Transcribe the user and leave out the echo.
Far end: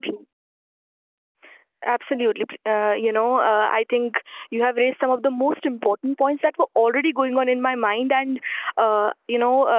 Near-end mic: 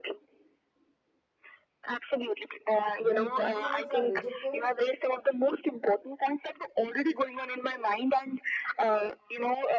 When compliments are rejected,

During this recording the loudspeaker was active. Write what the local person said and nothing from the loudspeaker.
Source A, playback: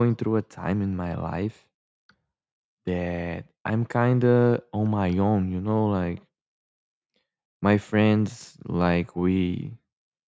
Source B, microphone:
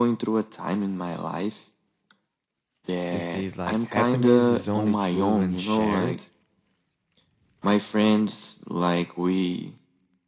that says like happiness is only true when shared.

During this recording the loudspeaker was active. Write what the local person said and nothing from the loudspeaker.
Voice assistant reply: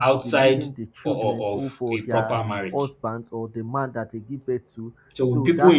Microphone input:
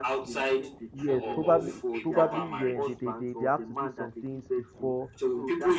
yes. Probably probably yeah, they, they, they, they have to do some things before

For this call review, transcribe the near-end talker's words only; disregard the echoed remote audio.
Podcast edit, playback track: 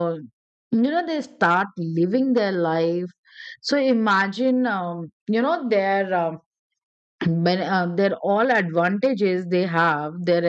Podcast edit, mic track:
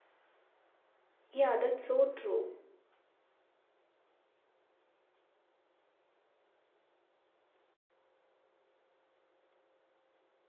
Yeah, that's so true.

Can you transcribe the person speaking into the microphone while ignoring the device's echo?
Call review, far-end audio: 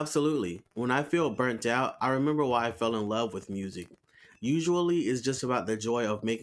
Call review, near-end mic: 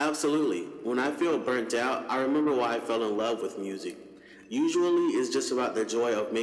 none

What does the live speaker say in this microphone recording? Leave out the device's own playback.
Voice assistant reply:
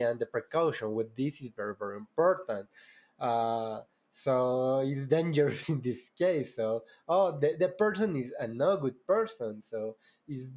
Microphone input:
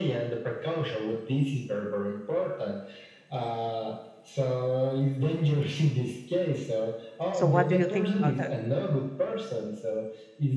so what do you think about that

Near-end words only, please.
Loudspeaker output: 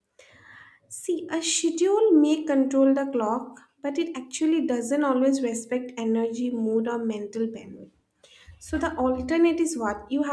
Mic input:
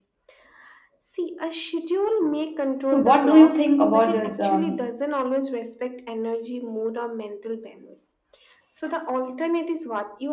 So, what do you think about this um,

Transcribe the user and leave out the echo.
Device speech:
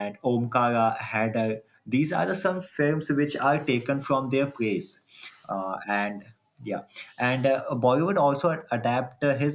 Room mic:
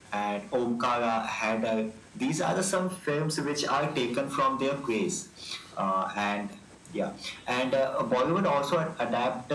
none

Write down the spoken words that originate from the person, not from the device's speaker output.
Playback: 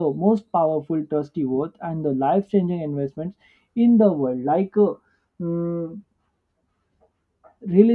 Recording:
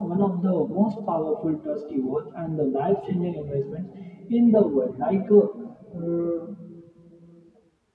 none

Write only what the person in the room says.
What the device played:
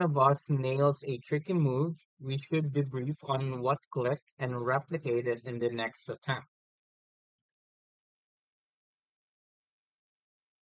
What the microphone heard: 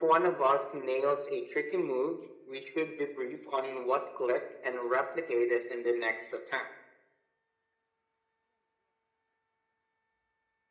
none

